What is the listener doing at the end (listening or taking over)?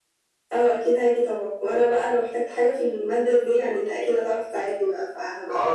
taking over